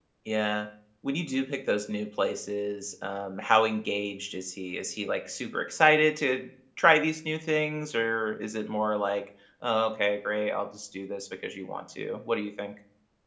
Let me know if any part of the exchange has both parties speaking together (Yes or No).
No